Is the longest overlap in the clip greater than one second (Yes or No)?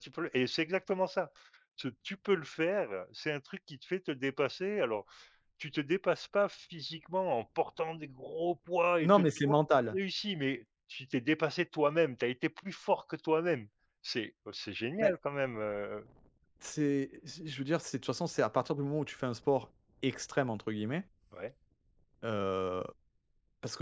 No